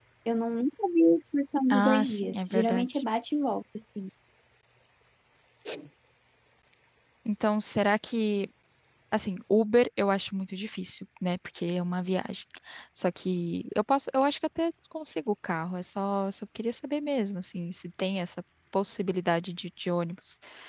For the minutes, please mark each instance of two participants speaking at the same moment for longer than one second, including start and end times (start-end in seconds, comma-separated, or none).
1.7-3.0